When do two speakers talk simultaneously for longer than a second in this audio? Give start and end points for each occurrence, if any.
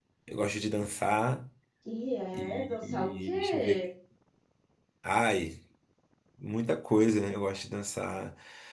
2.3-3.8

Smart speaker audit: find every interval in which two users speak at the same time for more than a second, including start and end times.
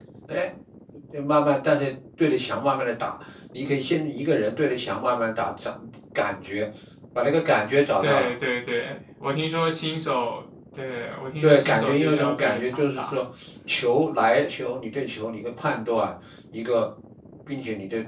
11.4-13.2

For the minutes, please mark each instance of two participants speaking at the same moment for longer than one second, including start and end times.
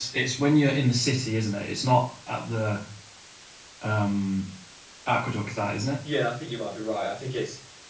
none

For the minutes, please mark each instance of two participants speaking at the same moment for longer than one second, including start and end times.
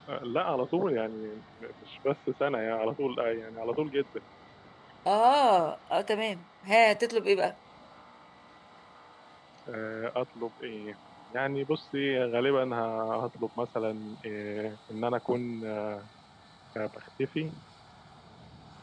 none

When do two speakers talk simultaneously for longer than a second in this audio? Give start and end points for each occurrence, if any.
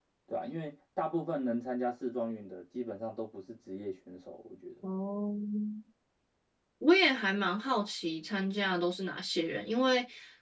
none

